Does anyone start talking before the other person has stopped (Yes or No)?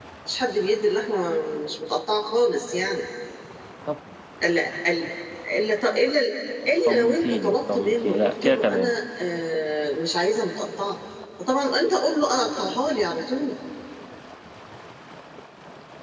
Yes